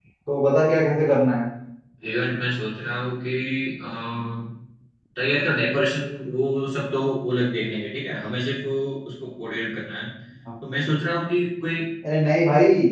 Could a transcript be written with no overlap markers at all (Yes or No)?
Yes